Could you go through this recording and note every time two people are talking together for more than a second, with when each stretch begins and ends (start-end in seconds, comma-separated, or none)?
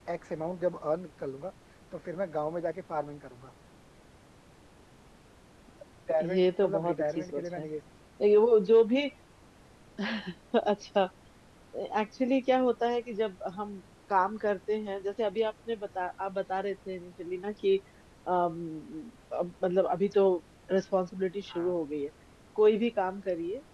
6.2-7.7